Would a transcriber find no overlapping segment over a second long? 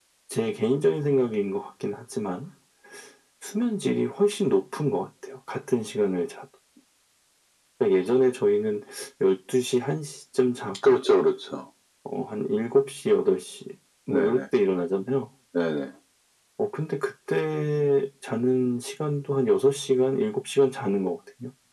Yes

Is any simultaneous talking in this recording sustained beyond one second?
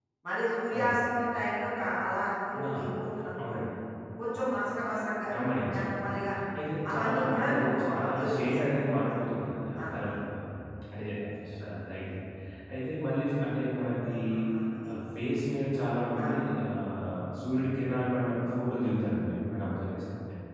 Yes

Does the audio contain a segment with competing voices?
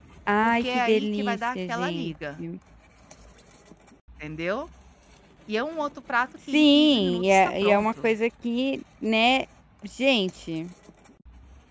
Yes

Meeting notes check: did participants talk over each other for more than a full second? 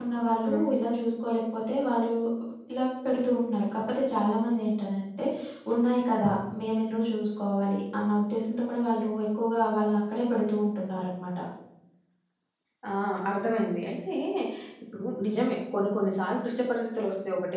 No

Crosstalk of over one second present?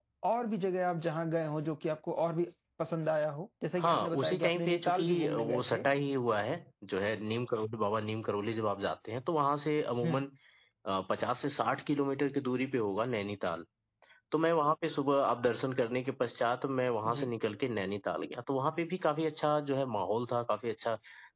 Yes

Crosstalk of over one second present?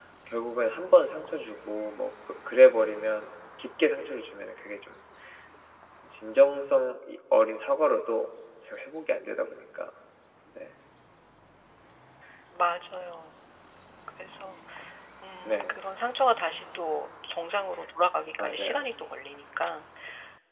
No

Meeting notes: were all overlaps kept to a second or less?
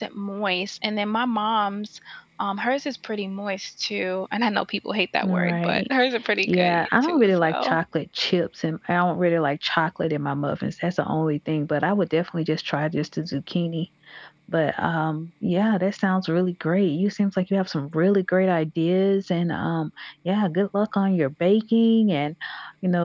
No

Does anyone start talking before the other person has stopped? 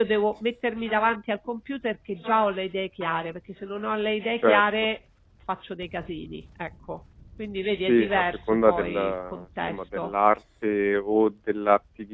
Yes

